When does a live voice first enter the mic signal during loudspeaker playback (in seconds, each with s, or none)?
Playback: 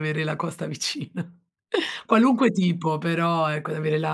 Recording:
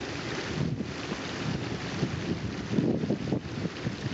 none